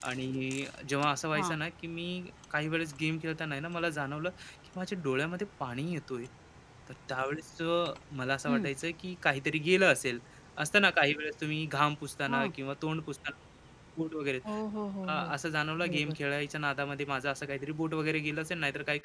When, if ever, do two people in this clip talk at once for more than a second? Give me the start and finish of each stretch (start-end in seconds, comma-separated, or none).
none